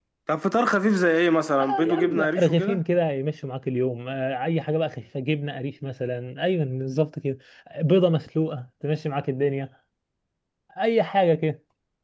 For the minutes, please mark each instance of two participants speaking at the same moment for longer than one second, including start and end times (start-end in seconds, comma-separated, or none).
1.6-2.8